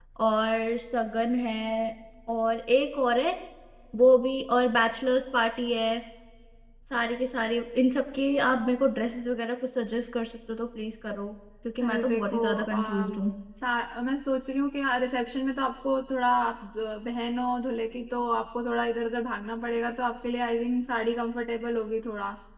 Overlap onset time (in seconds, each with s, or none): 11.8 s